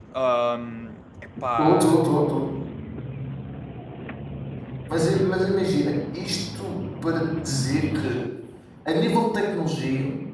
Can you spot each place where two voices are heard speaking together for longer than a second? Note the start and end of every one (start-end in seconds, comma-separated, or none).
none